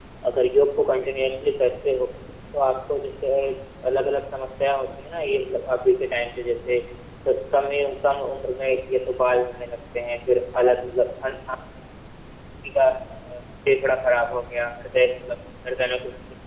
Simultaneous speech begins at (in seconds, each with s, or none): none